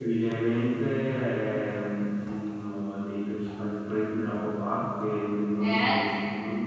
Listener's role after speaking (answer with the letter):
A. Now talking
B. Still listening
B